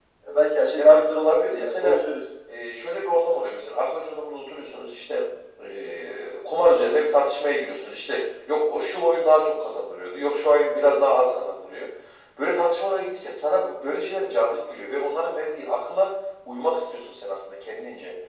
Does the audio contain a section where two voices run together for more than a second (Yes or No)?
Yes